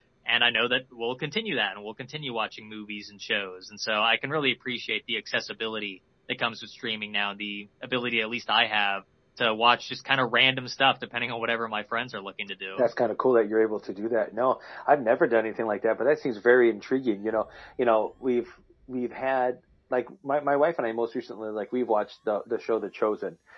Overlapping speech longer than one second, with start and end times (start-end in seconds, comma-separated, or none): none